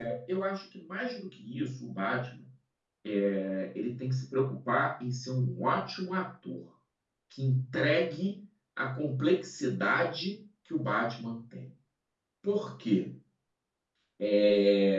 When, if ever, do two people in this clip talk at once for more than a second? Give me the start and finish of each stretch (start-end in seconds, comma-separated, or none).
none